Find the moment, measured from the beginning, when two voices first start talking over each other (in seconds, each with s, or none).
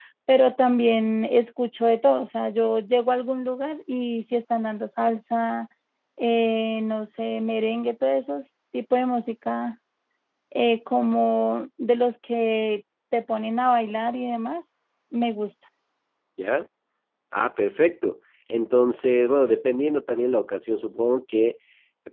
none